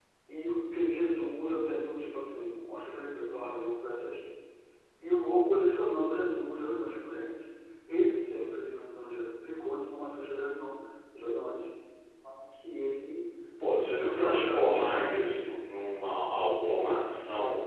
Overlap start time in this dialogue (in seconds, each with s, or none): 14.1 s